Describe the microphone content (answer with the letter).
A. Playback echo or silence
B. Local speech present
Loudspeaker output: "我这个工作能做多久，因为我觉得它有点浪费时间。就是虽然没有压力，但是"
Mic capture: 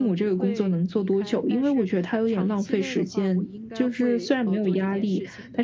B